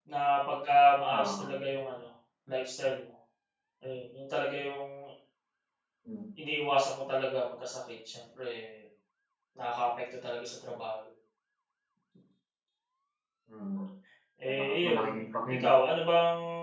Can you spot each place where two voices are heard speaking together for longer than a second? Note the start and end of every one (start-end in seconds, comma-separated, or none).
14.5-15.7